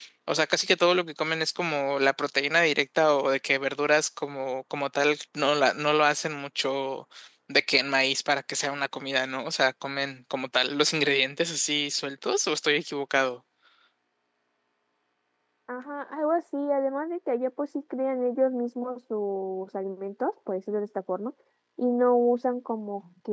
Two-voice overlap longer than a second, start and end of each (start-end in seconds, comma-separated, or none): none